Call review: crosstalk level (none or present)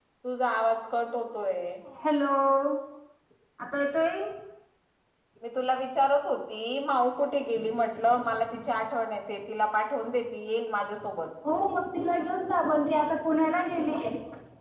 none